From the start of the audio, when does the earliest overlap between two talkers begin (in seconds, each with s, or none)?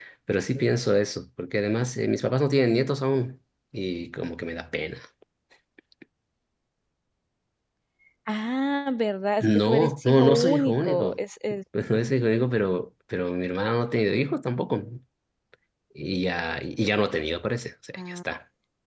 9.4 s